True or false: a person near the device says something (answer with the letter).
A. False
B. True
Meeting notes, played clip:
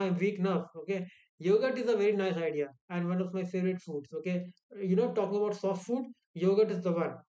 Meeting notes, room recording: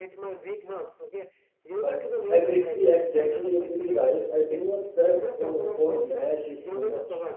B